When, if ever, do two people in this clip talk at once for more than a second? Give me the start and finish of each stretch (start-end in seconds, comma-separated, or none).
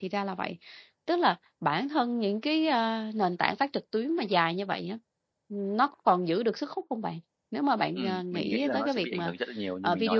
8.0-9.3